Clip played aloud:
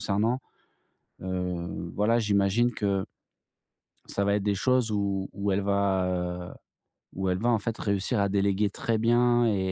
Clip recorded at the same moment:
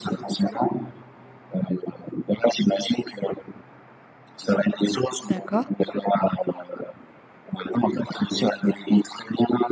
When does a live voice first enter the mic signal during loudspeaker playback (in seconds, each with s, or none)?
5.2 s